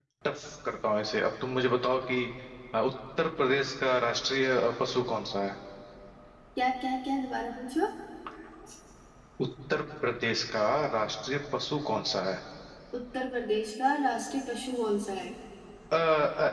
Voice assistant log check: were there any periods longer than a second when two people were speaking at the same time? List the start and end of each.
none

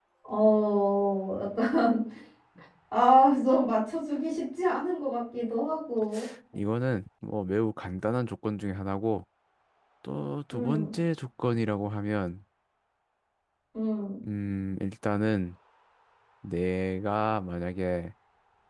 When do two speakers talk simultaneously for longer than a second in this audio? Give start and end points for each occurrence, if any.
none

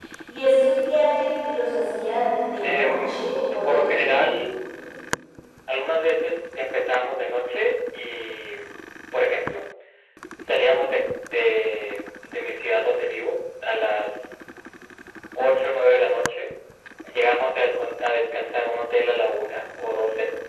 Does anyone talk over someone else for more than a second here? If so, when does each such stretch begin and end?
2.6-4.2

